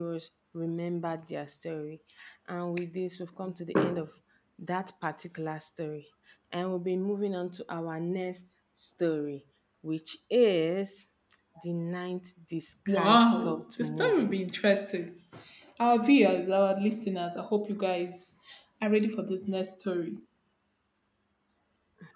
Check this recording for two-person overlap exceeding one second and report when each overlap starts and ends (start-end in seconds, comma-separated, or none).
12.9-14.4